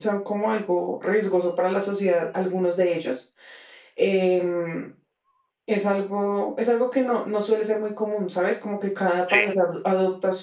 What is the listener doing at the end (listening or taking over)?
listening